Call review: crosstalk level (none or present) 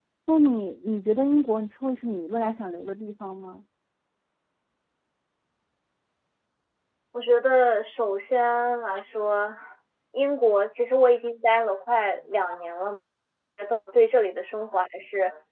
none